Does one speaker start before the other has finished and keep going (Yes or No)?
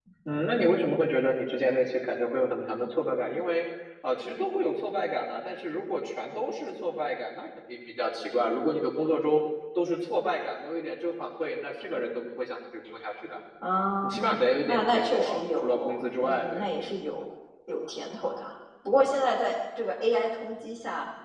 Yes